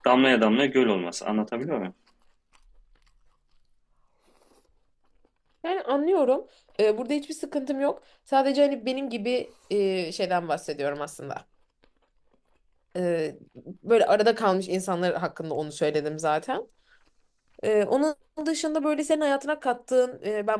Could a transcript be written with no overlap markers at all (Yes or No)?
Yes